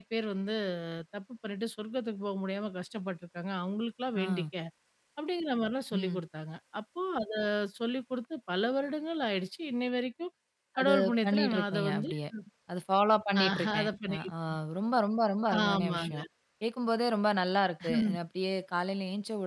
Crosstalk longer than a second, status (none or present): present